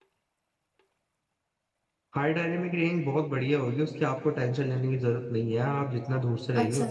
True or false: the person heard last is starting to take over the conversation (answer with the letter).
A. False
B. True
B